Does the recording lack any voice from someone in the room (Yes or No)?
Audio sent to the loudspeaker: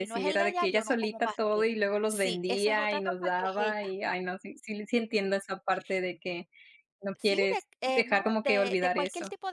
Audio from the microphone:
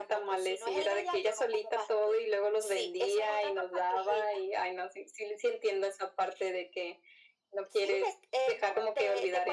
Yes